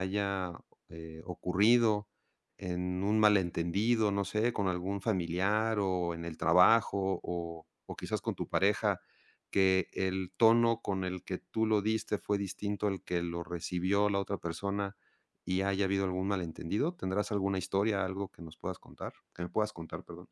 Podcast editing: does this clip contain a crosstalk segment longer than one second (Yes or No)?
No